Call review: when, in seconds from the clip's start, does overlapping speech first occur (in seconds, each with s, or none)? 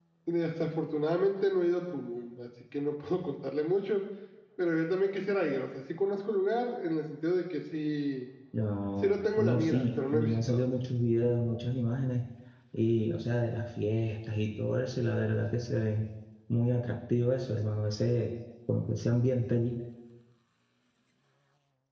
9.0 s